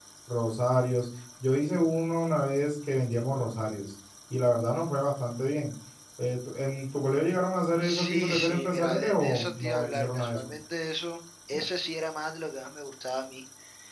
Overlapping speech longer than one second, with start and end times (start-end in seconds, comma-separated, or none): 7.8-10.5